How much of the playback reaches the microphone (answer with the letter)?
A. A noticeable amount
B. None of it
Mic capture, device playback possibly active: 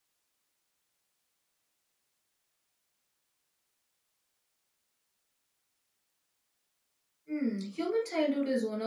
B